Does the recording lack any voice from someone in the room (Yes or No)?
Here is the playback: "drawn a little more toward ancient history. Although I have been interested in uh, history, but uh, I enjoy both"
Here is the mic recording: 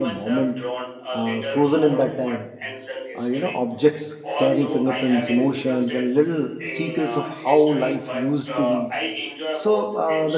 No